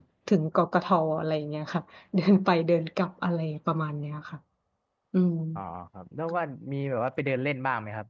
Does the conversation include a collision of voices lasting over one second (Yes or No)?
No